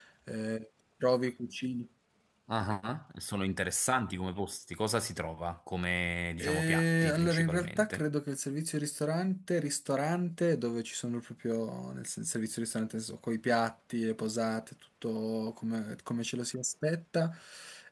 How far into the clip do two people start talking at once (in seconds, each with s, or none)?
6.4 s